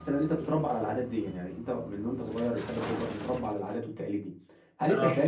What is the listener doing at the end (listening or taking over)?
listening